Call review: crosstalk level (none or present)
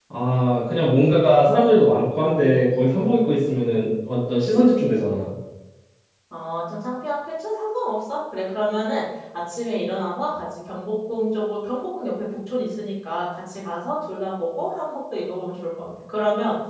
none